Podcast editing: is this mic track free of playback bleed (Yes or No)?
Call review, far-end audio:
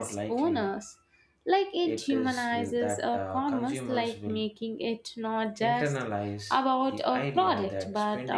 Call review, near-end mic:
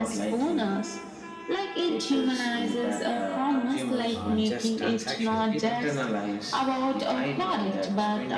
No